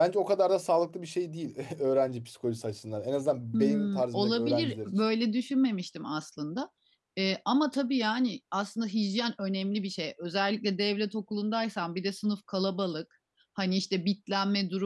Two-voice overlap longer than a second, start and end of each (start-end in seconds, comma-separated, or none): 3.5-4.9